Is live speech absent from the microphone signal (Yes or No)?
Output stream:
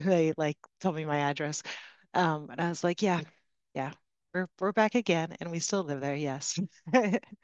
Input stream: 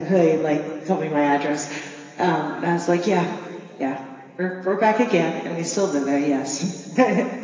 Yes